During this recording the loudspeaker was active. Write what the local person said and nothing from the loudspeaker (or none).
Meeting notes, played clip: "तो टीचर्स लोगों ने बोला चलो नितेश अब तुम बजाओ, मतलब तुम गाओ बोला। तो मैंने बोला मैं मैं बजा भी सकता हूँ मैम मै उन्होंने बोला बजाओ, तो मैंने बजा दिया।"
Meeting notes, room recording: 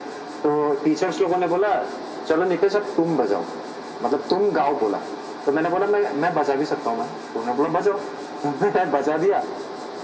none